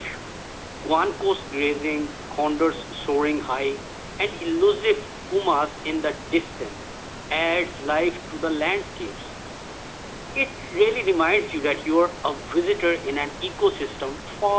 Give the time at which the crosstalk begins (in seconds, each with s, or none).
none